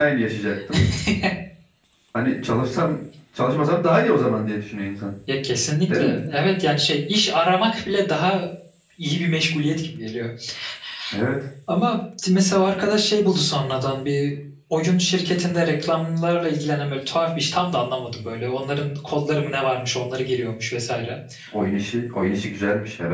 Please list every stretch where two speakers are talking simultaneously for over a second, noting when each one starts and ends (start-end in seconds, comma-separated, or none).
none